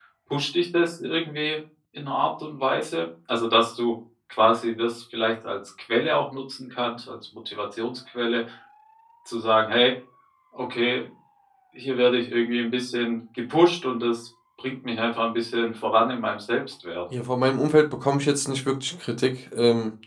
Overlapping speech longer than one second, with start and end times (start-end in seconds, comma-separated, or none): none